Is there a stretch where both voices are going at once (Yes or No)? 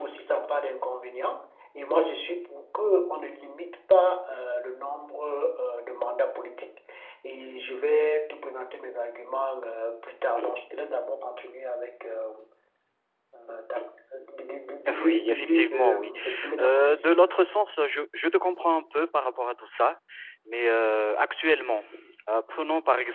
Yes